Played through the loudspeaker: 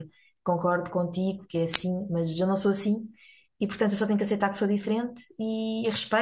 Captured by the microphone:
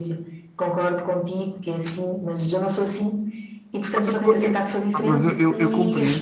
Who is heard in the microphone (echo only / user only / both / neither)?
both